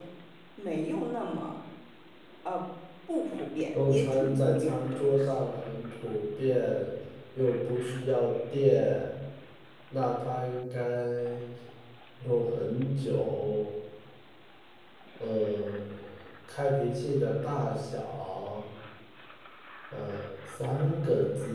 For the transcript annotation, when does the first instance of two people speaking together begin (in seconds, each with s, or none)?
3.7 s